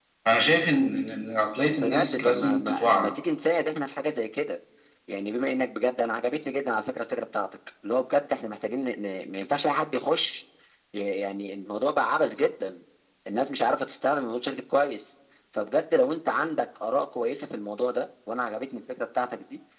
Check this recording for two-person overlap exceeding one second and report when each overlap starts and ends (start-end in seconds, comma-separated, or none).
1.8-3.1